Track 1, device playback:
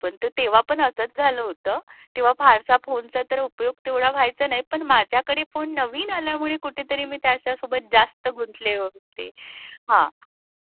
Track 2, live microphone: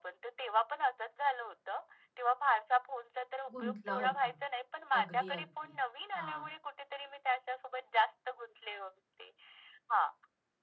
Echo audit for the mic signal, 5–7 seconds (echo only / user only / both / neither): both